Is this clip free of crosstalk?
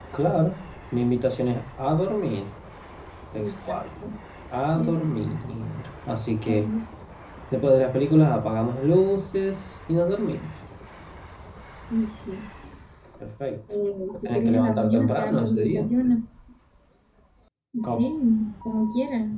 No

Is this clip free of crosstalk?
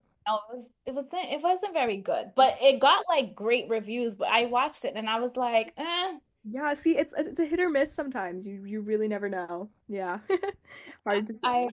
Yes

